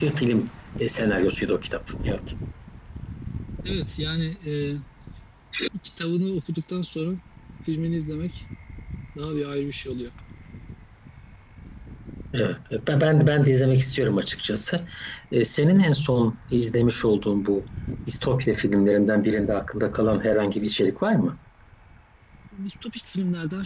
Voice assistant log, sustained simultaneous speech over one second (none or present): none